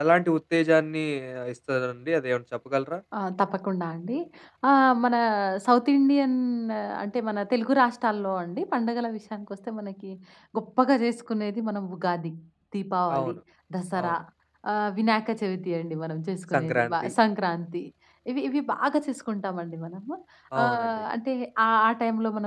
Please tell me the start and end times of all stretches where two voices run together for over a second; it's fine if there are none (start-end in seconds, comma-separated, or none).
none